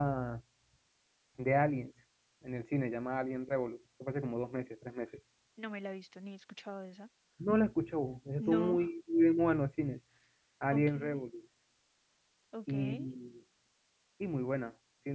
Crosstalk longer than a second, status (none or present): none